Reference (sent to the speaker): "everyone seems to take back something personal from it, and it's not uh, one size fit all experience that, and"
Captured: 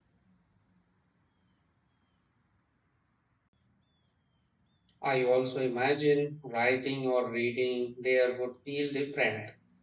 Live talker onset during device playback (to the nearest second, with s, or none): 5 s